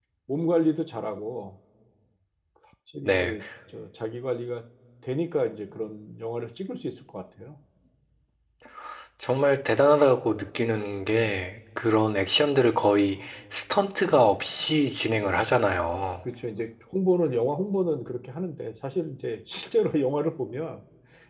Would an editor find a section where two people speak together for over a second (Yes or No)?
No